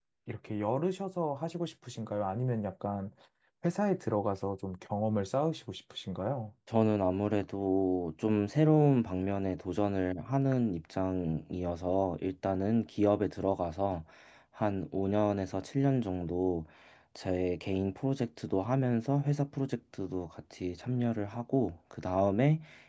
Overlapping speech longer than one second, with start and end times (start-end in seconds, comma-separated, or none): none